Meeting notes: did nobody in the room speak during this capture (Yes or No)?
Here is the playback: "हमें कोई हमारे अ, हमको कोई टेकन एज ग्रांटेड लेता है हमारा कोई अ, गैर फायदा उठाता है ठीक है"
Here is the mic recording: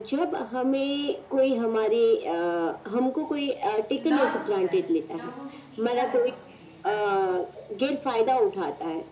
No